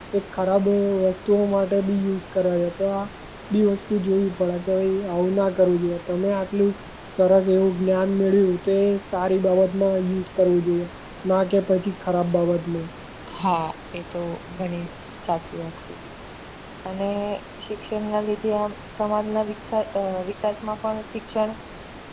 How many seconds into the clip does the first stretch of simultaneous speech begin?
none

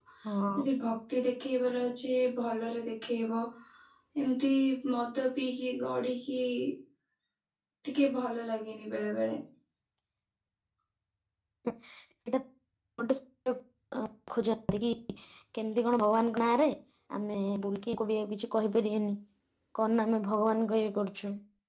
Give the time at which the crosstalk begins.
none

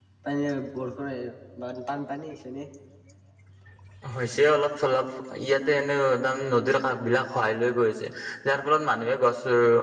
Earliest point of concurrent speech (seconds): none

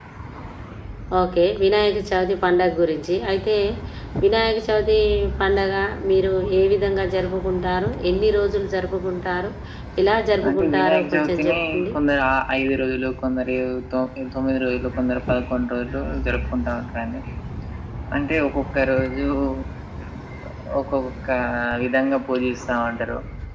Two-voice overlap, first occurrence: 10.5 s

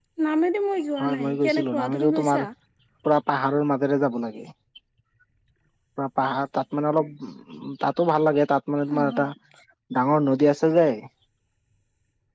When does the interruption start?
1.0 s

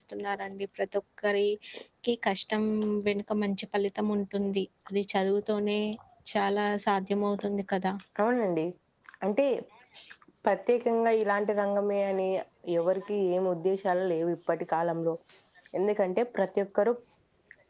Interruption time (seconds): none

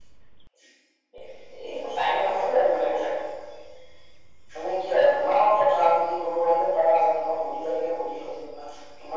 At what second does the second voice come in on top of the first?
1.8 s

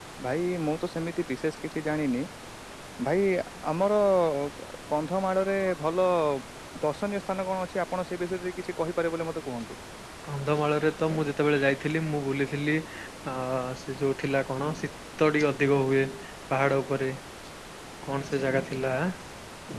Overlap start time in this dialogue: none

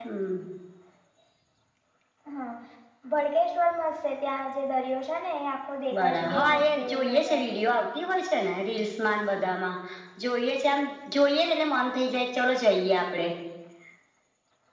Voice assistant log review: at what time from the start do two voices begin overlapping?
5.9 s

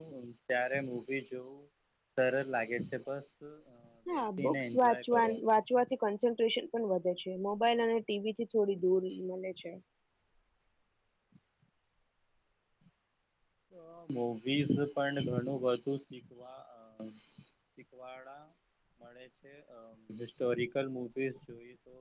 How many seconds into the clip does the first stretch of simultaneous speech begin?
4.1 s

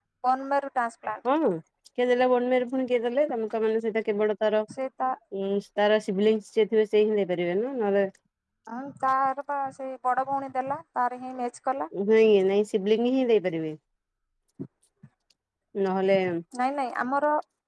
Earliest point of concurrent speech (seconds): none

